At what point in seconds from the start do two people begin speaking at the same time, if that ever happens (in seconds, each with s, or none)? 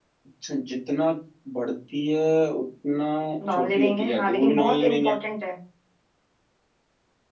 3.5 s